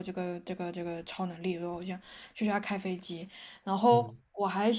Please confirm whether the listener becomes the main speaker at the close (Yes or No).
No